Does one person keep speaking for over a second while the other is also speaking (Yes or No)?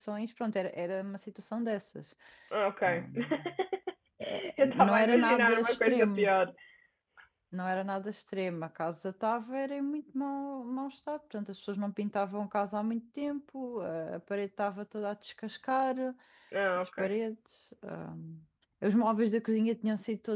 Yes